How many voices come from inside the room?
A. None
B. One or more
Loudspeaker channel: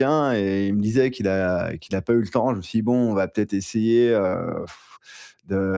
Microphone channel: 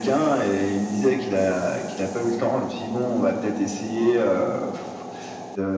A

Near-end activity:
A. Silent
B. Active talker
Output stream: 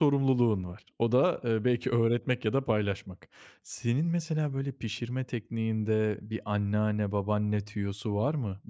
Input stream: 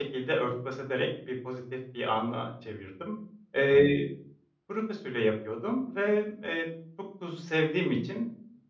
B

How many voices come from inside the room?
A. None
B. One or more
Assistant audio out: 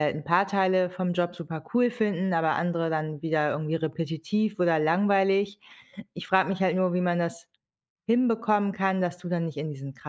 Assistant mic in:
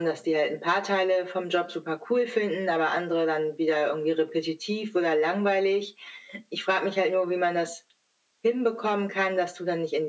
A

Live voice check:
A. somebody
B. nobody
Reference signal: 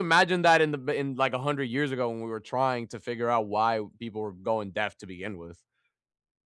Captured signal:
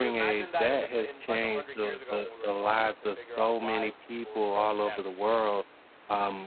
A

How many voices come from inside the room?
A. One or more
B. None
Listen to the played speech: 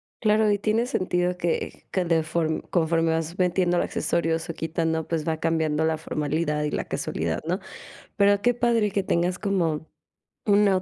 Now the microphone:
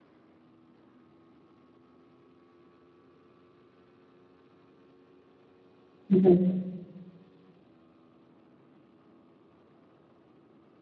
A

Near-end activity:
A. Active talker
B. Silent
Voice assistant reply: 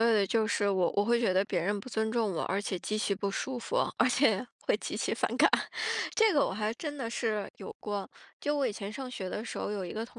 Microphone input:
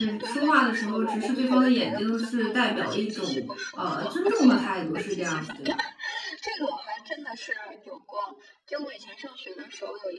A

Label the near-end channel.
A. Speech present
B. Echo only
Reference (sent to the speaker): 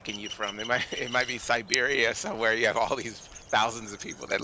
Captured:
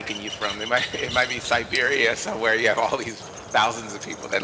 B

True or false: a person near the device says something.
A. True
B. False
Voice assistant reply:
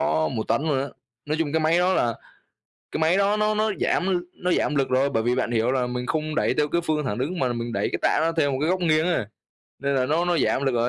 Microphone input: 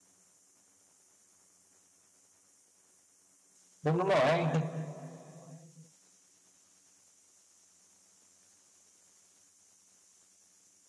A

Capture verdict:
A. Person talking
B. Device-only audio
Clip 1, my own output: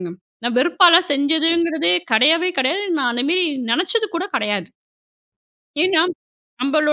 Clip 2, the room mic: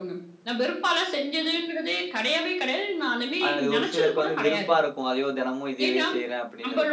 A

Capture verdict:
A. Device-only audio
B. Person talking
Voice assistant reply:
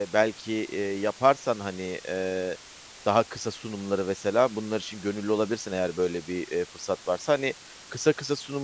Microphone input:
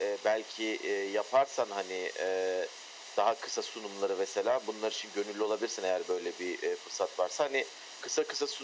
A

